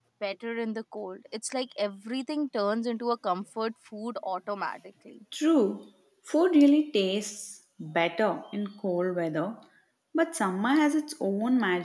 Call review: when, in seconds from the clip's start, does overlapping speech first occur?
none

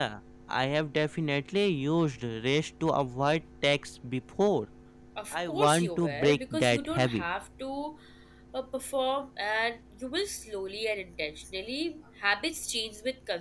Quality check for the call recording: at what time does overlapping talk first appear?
5.3 s

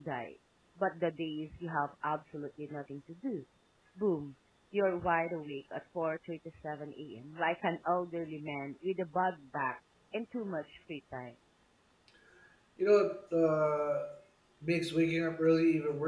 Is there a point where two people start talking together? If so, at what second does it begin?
none

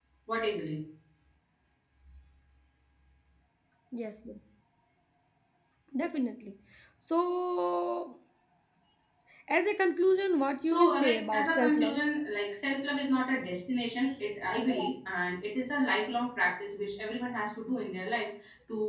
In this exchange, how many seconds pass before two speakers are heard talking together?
10.6 s

